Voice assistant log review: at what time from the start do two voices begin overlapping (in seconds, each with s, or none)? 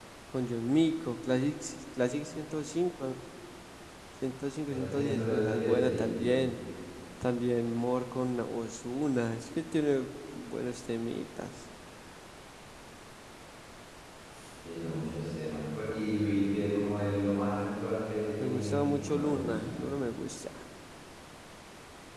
4.6 s